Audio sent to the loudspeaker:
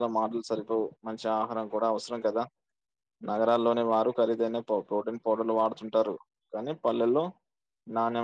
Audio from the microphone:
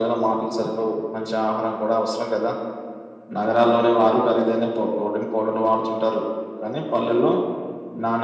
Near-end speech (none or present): none